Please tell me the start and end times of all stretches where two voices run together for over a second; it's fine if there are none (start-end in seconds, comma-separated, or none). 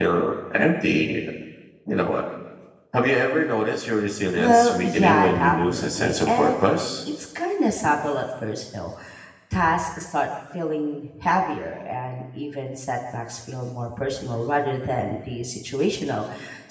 4.4-6.6